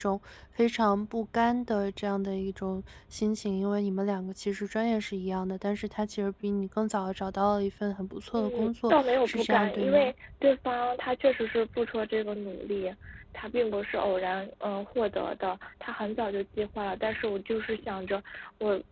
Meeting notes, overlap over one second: present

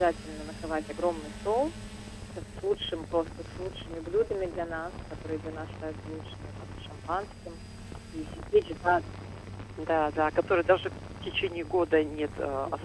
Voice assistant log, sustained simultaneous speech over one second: none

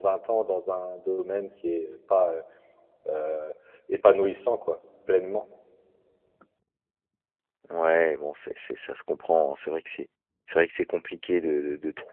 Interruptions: none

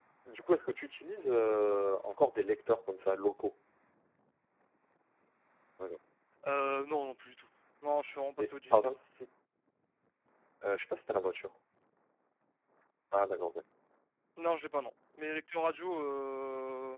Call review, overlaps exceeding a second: none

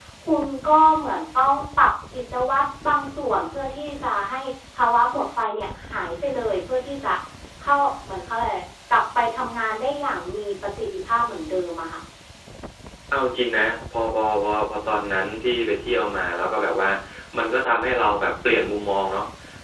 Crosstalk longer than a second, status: none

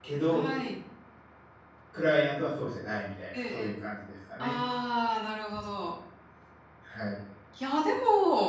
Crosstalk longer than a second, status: none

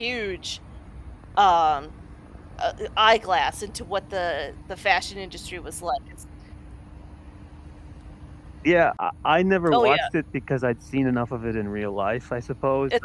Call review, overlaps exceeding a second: none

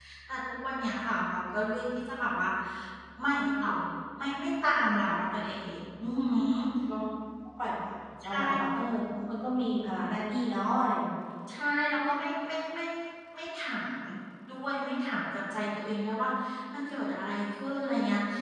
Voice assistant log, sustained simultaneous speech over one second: none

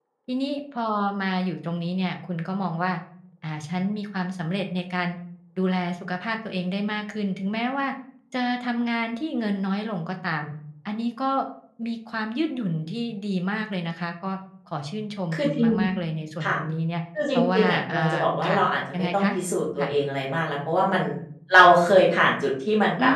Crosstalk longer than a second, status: present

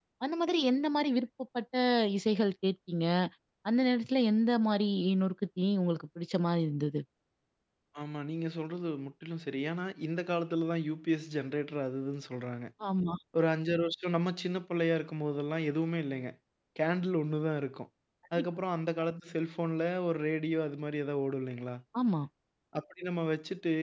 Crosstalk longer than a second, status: none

